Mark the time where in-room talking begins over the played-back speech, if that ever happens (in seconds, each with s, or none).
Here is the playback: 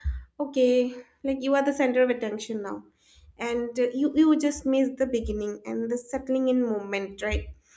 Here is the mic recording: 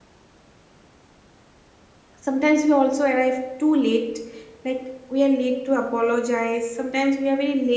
2.2 s